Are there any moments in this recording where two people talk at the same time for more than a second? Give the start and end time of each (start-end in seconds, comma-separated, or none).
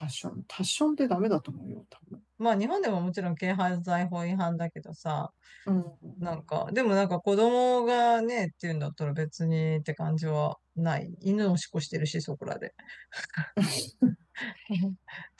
none